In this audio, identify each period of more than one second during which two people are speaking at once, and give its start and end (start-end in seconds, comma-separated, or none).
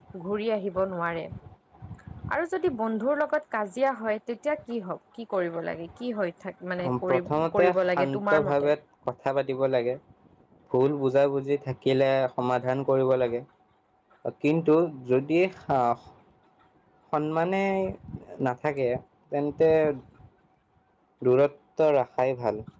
6.9-8.7